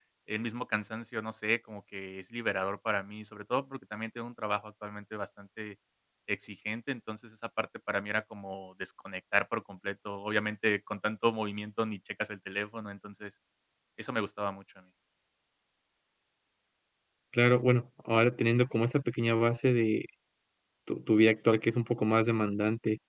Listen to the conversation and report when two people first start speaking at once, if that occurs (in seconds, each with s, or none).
none